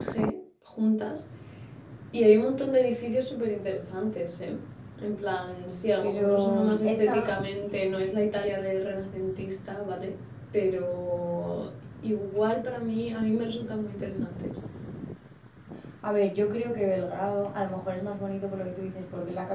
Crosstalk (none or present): present